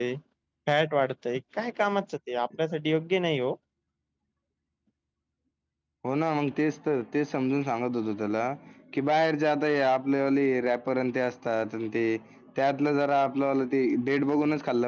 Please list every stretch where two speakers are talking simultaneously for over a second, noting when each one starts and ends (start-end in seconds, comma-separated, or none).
none